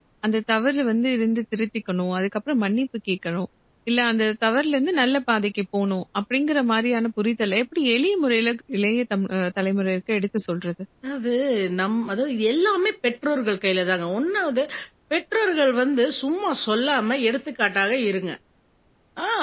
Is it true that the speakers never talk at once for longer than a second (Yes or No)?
Yes